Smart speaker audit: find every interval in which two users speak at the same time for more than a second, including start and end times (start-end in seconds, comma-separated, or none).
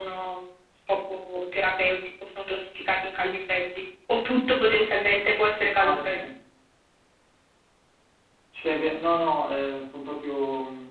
none